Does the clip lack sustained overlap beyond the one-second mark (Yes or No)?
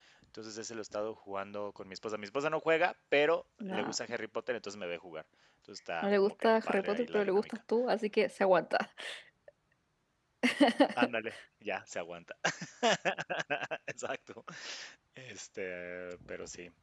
No